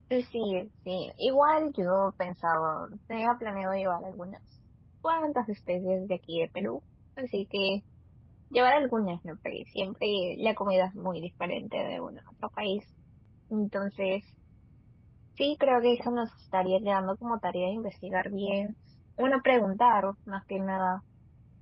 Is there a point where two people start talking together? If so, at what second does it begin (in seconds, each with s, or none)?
none